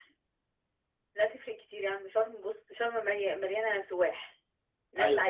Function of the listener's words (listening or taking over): listening